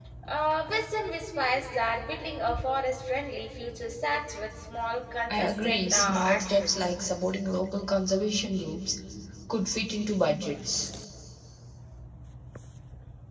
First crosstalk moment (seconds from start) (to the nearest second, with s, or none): 5 s